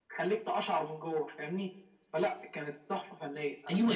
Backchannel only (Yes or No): No